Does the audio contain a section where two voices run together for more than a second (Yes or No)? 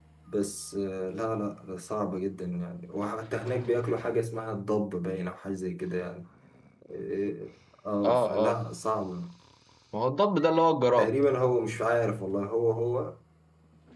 No